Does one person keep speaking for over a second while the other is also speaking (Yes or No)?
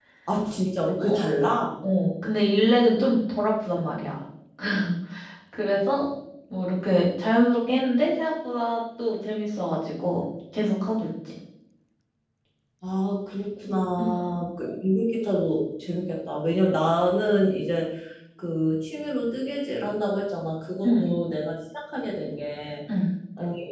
No